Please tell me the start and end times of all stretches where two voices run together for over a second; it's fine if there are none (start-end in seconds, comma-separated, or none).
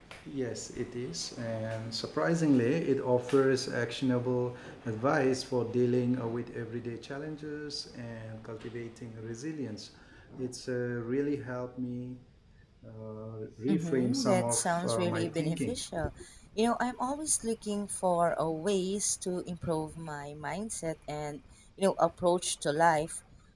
13.7-15.8